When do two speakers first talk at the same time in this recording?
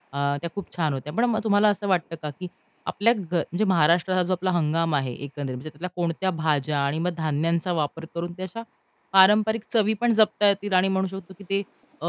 none

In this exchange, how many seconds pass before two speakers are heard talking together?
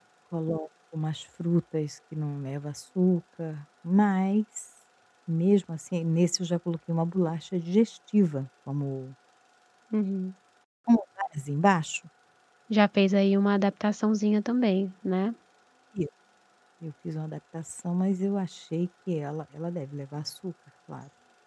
none

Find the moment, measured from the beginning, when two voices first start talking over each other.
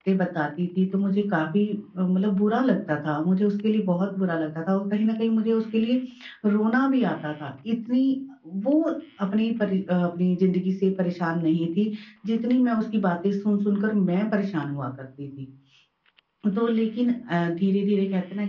none

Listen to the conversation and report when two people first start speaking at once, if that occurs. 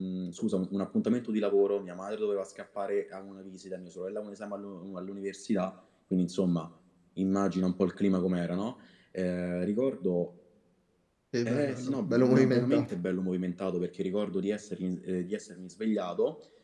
11.4 s

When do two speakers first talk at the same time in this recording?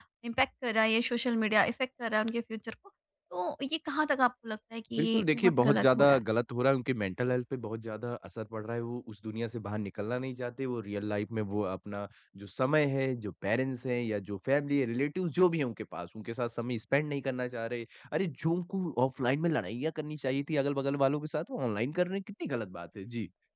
4.9 s

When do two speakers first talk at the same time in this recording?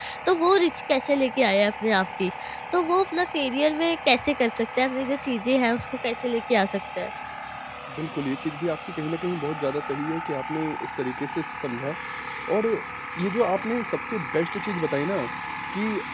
none

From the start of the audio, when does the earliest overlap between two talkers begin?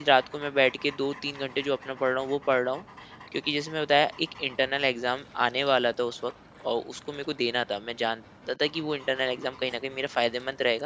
none

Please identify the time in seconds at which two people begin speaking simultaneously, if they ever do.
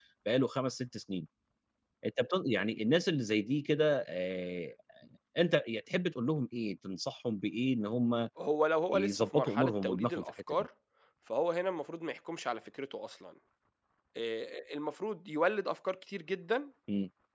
8.9 s

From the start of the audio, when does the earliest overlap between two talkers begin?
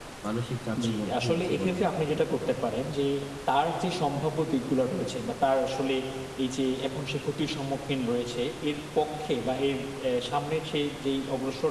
0.8 s

